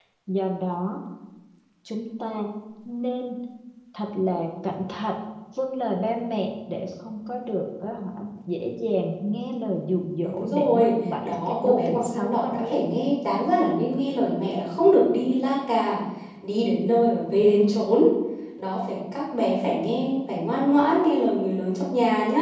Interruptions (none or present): present